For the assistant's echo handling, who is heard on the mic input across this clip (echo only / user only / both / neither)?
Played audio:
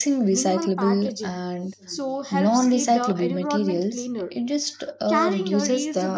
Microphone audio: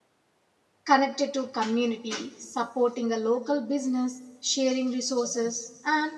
user only